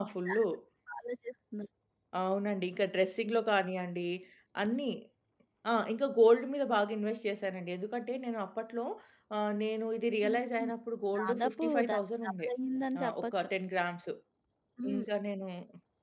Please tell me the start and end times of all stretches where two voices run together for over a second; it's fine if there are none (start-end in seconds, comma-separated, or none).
11.2-12.5